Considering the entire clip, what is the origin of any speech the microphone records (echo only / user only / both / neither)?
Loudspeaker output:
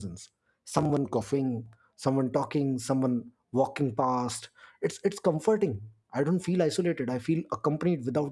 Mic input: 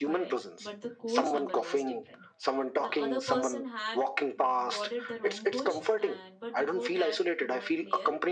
both